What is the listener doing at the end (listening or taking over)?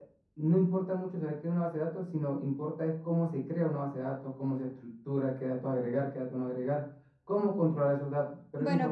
taking over